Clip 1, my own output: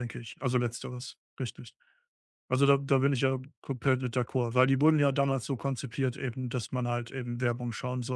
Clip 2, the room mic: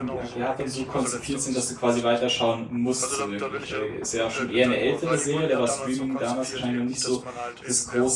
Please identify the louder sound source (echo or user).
user